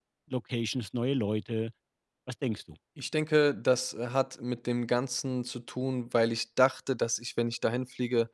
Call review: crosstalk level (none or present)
none